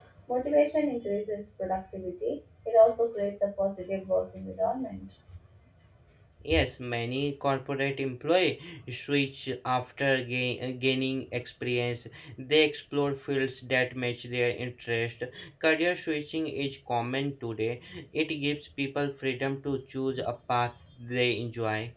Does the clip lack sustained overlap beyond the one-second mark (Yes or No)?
Yes